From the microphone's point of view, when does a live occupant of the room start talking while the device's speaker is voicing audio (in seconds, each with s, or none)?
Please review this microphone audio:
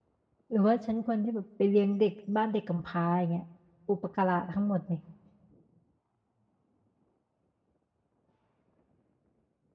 0.5 s